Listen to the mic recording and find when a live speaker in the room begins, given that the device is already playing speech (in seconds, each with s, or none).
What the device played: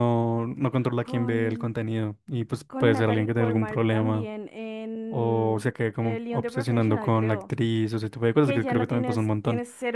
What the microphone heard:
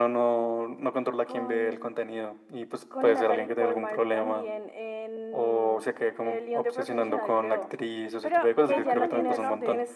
8.2 s